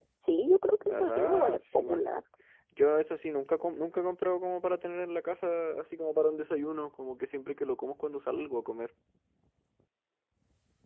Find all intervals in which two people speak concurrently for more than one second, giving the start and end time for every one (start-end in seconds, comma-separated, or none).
0.8-2.0